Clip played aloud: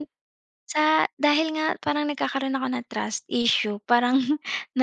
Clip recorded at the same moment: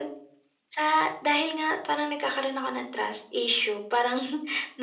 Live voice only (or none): none